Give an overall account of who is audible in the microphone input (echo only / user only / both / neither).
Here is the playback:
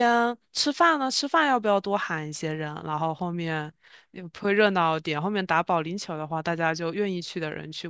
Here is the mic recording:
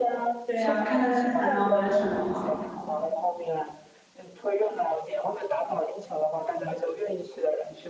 both